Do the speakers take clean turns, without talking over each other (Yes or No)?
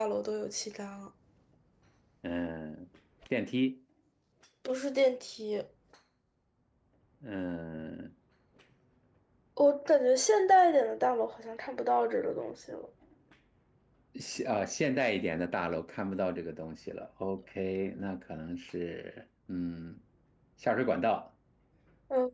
Yes